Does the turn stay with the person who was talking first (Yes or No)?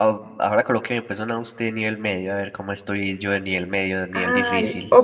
No